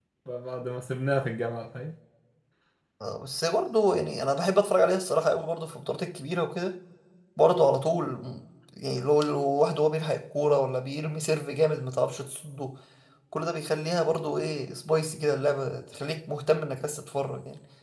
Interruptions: none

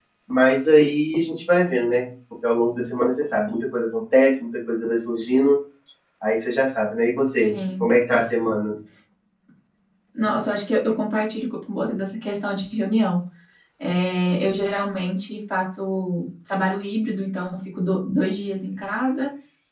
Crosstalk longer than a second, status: none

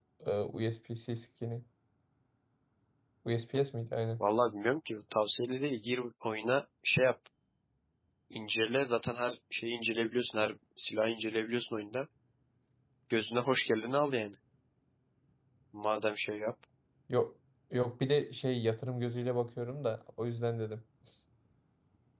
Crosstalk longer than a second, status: none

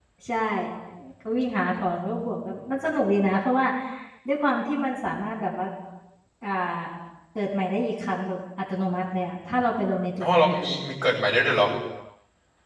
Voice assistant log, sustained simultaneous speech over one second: none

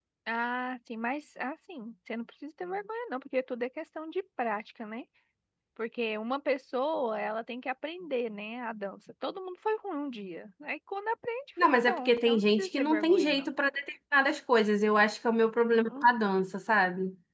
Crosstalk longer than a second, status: present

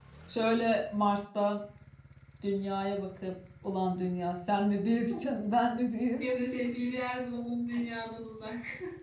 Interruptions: none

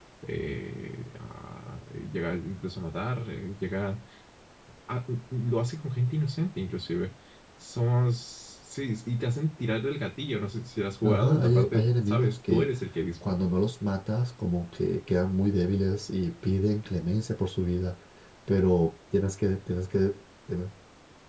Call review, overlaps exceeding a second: present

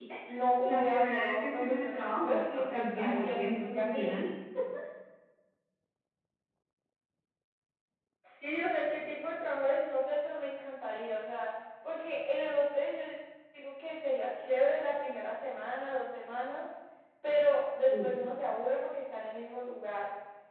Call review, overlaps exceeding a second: present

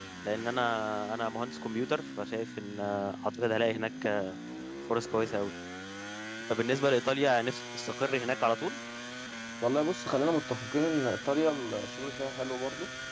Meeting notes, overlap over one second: none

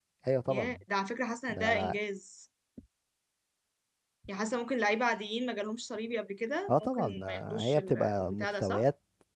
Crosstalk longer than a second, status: present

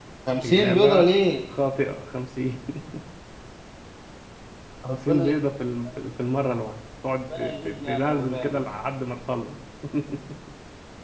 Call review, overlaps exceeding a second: present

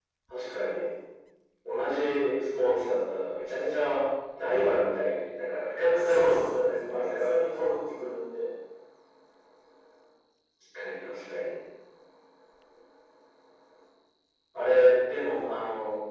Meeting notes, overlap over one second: present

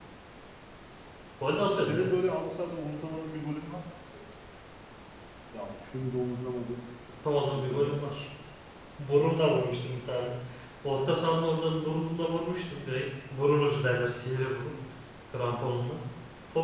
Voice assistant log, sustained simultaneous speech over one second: none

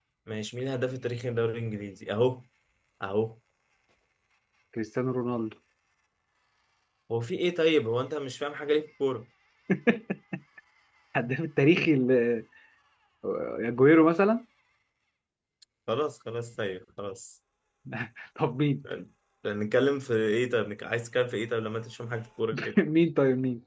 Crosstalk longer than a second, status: none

